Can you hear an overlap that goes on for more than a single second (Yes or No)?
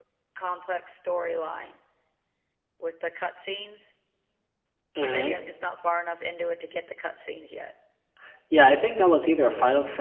No